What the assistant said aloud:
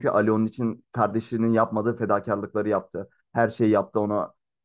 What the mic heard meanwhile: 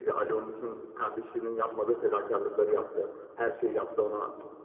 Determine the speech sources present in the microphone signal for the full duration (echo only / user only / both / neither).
echo only